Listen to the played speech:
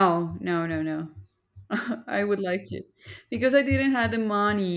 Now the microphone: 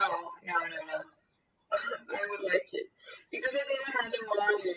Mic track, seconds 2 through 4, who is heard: echo only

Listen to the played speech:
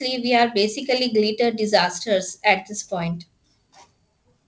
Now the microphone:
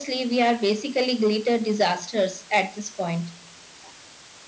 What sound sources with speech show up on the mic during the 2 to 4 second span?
echo only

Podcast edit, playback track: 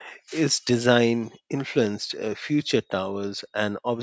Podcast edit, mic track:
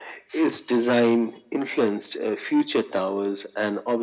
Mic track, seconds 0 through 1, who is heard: echo only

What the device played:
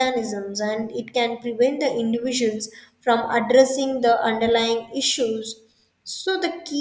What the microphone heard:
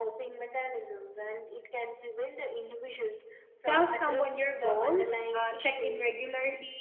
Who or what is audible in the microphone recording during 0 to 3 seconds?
echo only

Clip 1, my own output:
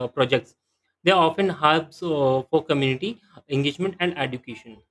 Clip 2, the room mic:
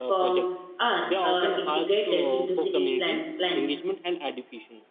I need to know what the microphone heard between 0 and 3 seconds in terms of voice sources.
both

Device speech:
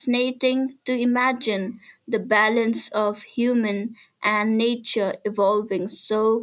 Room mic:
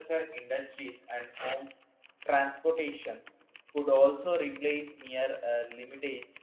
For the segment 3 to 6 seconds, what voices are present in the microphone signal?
user only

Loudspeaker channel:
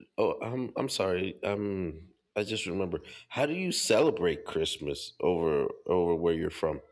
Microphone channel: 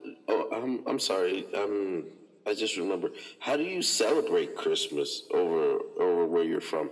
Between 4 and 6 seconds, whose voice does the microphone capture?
echo only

